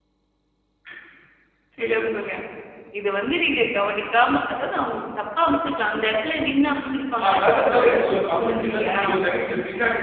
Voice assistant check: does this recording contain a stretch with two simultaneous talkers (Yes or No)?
Yes